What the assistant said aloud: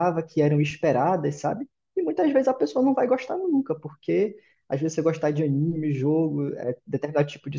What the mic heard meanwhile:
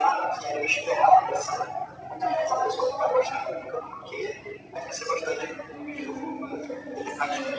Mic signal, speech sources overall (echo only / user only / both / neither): both